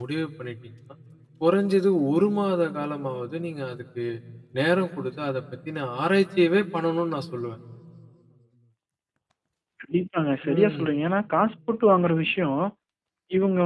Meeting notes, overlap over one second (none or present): none